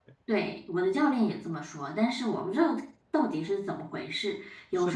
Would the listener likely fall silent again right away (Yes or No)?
No